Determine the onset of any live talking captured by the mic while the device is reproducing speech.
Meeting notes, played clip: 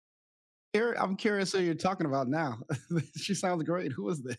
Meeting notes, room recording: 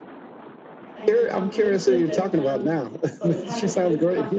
1 s

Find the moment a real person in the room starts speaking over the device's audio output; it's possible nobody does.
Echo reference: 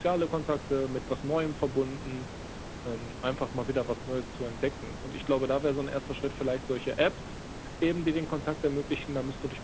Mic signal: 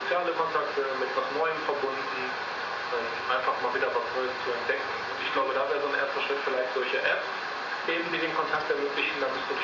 none

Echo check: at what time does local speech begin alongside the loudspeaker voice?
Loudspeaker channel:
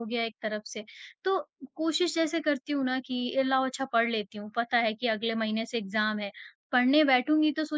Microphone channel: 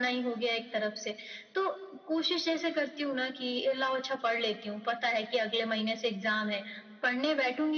none

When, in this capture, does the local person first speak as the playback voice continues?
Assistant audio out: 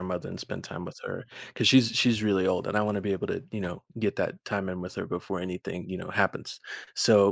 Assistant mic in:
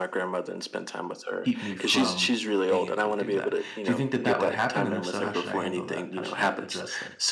1 s

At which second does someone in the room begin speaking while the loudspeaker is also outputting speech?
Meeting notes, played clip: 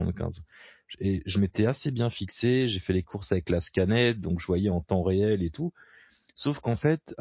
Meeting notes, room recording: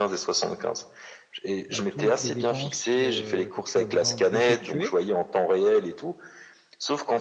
2 s

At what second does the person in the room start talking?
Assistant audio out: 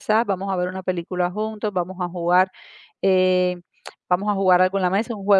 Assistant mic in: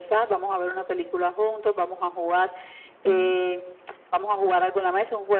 3 s

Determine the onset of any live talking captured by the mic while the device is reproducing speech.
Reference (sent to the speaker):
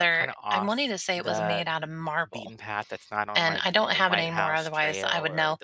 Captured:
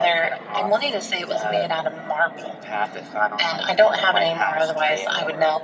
none

